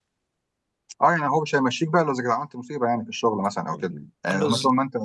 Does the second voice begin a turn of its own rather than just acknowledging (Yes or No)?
No